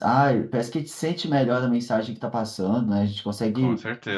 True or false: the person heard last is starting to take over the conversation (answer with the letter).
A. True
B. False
B